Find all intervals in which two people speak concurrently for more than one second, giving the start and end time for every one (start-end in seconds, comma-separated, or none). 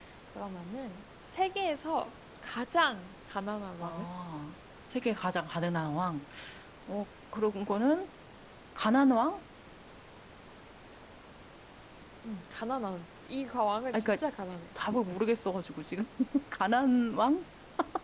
none